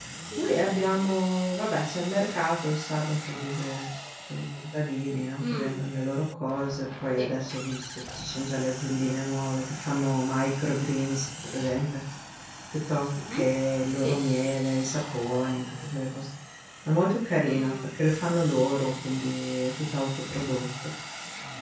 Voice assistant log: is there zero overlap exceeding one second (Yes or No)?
Yes